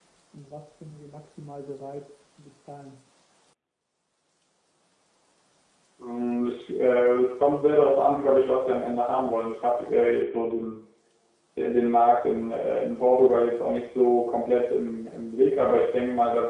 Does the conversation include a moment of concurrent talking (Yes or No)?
No